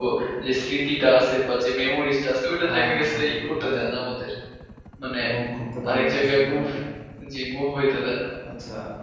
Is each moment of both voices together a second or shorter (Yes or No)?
No